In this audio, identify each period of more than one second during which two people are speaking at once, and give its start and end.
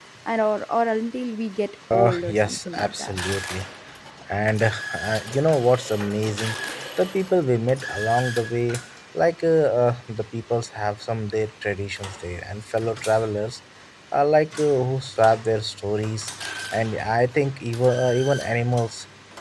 1.9-3.1

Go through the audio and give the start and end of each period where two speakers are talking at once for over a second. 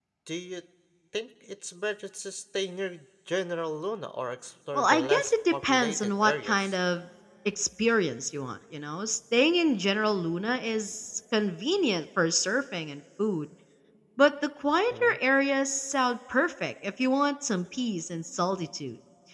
4.7-6.7

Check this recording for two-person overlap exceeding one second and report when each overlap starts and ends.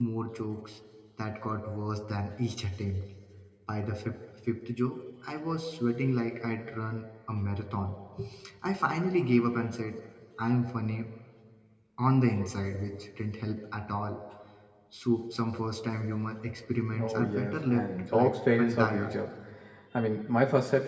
17.0-19.2

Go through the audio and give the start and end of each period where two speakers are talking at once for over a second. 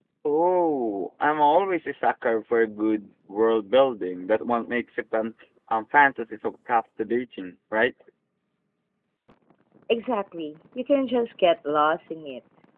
none

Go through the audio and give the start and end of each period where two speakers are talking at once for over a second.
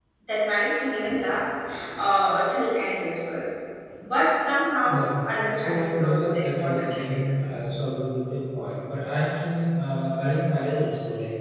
5.5-7.0

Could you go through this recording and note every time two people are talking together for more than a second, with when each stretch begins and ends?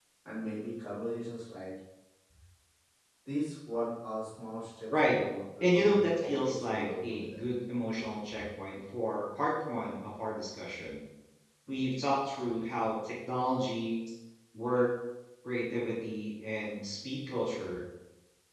5.6-7.5

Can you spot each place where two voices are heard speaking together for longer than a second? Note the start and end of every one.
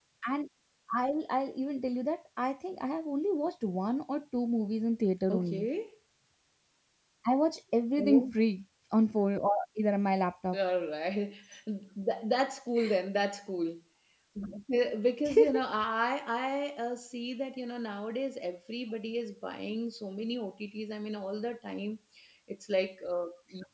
none

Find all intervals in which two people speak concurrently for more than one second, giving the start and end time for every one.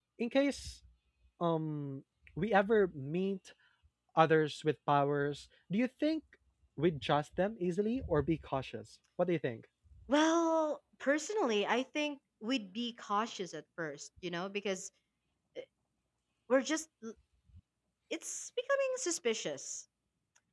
none

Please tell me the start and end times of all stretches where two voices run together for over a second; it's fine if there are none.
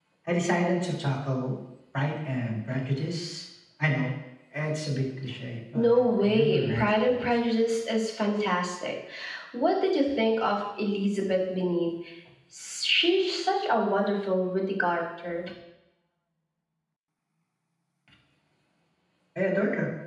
5.7-7.4

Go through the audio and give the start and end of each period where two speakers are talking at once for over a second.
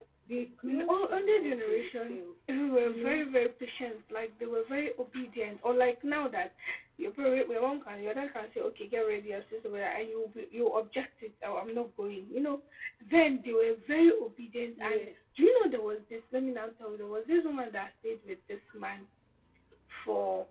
0.7-2.2

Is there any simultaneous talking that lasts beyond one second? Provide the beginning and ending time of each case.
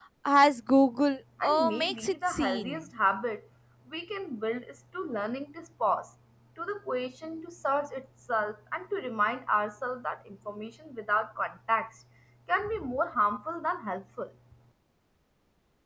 1.4-2.8

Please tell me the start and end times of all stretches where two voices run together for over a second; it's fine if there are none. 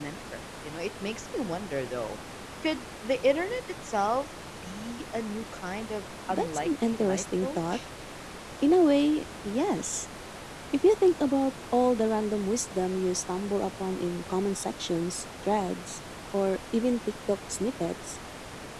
6.3-7.8

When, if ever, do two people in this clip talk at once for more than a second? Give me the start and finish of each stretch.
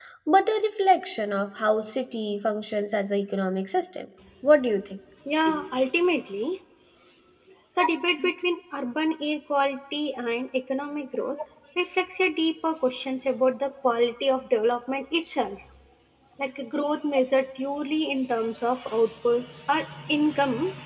none

